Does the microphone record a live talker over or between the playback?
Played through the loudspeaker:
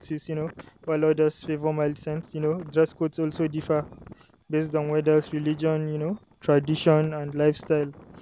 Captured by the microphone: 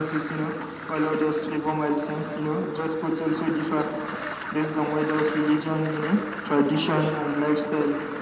No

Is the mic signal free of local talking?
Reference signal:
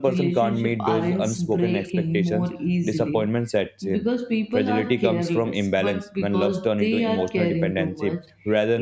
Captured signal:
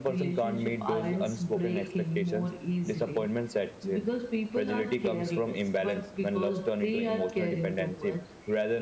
Yes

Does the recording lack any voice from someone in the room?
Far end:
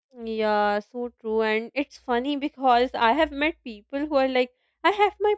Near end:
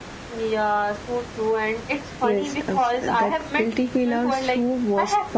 No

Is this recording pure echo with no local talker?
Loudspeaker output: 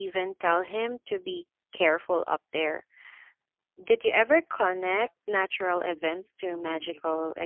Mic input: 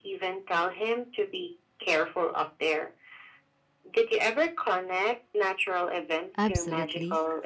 No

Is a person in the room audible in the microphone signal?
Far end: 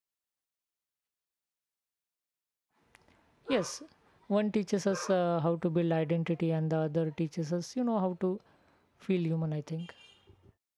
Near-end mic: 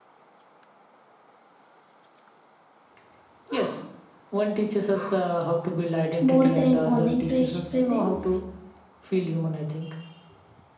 Yes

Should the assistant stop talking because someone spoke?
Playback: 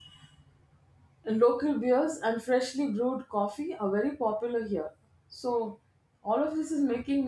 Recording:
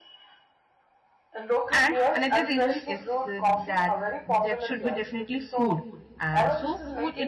Yes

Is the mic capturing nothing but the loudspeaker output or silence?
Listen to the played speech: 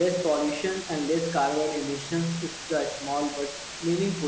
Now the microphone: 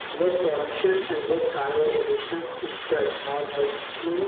Yes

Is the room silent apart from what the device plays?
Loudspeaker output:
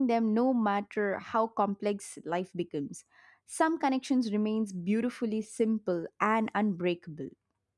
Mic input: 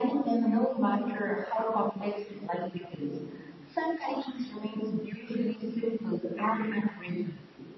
Yes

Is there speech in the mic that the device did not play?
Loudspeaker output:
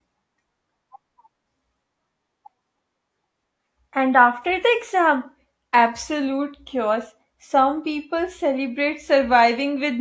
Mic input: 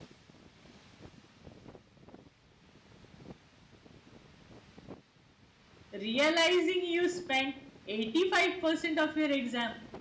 Yes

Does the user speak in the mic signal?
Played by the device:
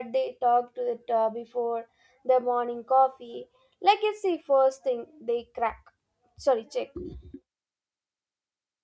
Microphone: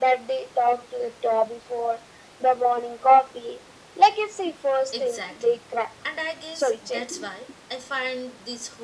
Yes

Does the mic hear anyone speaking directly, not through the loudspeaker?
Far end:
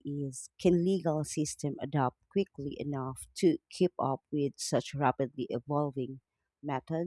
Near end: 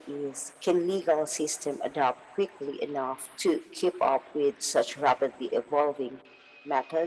No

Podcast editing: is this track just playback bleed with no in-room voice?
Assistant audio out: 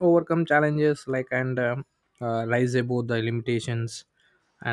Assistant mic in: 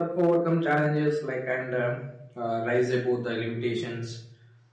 Yes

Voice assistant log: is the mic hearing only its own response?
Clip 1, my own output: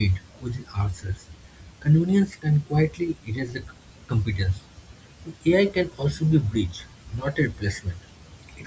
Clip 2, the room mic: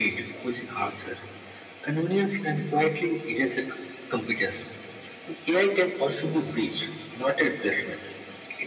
Yes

